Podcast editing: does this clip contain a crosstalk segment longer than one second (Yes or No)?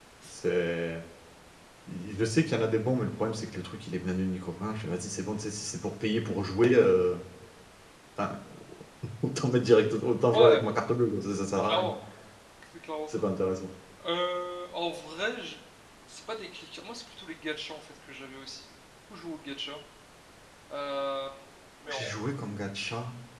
No